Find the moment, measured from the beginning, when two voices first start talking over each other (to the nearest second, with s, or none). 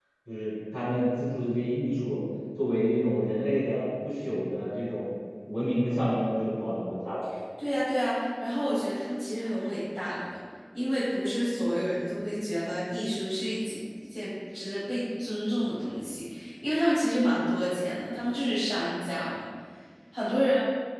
none